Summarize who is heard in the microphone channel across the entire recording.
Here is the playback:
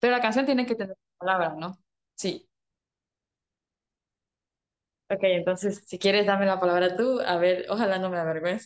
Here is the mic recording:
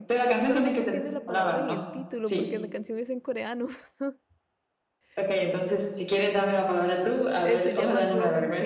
both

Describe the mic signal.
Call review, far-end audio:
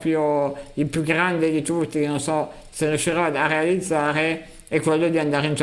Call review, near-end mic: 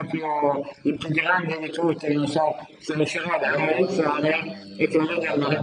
both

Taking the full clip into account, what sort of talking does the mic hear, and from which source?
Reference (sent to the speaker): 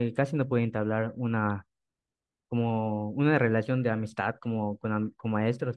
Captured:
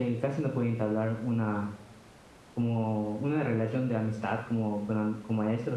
echo only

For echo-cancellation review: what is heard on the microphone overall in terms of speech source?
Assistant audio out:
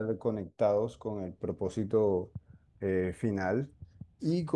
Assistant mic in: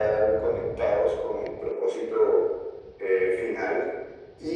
echo only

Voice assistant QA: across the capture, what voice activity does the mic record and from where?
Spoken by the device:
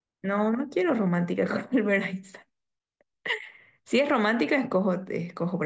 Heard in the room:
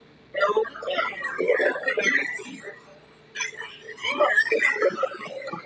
echo only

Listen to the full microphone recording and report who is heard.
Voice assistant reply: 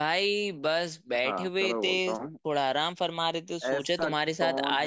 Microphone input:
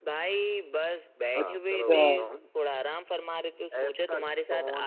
both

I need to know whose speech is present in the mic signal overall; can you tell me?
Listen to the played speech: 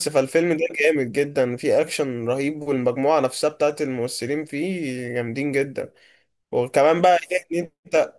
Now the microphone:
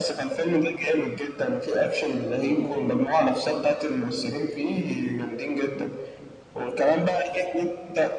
echo only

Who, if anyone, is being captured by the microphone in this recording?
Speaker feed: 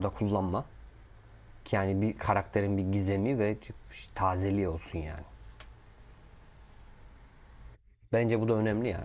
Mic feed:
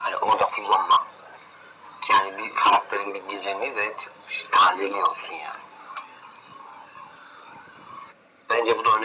echo only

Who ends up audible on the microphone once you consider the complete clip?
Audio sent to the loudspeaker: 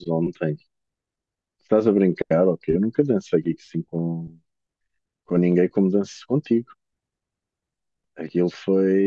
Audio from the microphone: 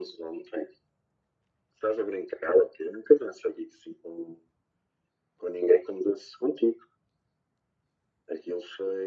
echo only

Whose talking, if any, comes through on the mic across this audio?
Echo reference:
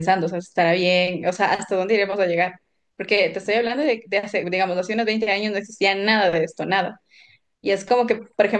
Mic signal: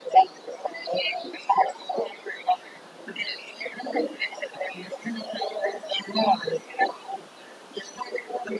echo only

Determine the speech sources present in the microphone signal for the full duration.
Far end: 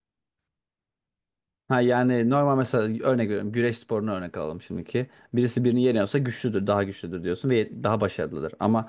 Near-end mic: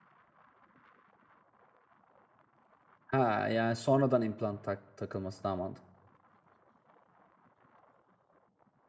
user only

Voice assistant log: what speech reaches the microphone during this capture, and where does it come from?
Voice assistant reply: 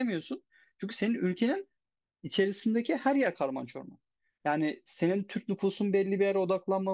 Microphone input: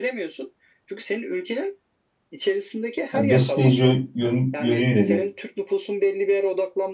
both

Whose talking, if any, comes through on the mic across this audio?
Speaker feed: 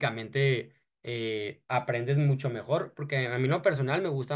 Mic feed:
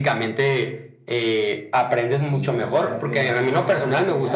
both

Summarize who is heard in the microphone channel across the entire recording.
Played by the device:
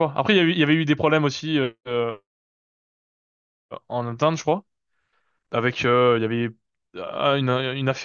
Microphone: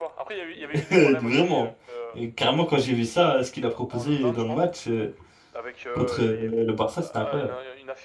both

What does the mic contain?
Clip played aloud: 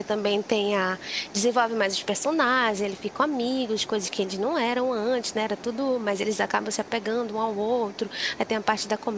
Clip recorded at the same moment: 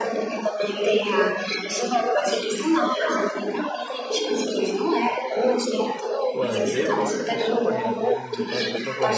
both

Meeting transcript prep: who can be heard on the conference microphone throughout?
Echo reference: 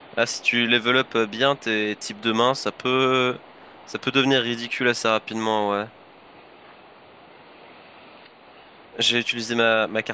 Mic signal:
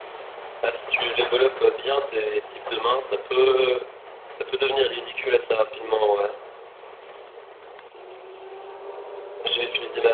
echo only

